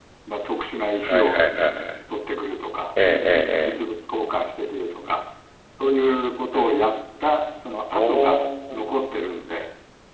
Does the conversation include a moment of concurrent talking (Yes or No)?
Yes